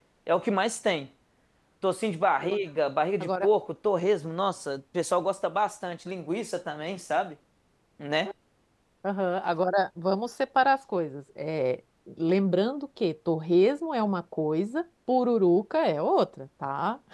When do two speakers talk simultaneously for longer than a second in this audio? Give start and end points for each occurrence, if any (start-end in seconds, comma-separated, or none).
none